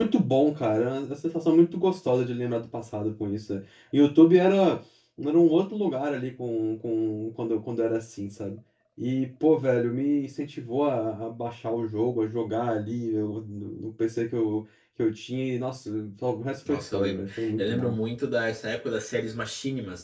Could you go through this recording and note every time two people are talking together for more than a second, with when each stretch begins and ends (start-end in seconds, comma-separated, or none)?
16.7-17.9